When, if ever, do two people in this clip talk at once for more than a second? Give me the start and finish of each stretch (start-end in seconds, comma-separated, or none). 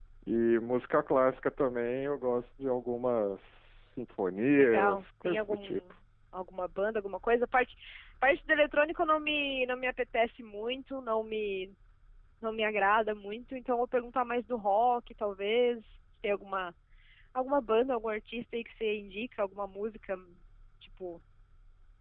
4.6-5.8